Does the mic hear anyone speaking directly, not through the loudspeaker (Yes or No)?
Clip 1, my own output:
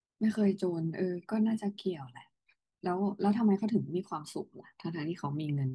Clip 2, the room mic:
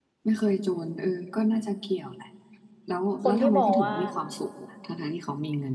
Yes